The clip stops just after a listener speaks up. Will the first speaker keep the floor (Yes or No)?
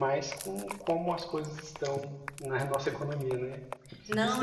No